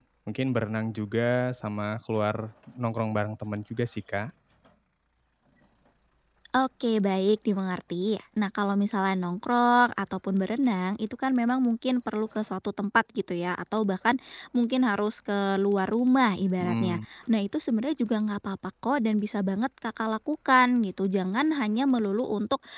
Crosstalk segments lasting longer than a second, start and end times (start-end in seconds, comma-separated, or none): none